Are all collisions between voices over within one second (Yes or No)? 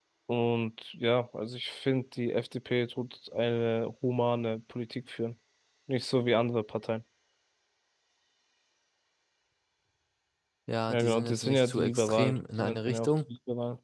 No